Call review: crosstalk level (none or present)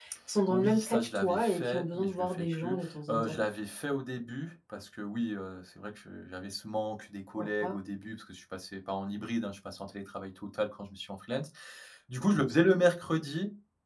present